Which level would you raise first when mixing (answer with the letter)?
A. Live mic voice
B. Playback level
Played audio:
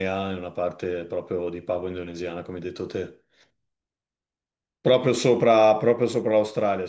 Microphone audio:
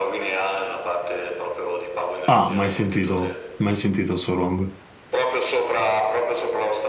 B